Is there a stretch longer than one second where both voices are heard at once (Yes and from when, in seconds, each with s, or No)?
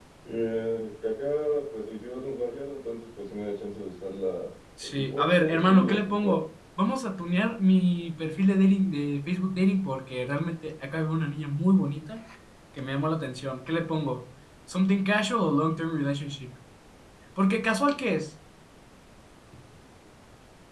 Yes, from 4.8 s